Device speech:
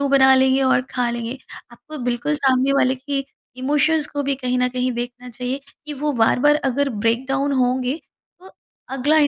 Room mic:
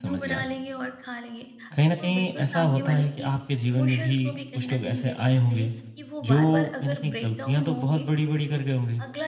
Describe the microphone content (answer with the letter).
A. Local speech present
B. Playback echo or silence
A